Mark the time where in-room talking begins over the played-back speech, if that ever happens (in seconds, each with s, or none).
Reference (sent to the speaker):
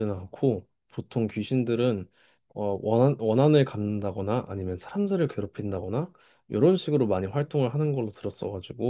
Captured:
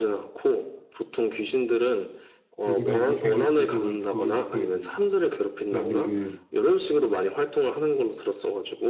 2.6 s